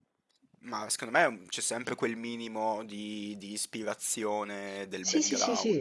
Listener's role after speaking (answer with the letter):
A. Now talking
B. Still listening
A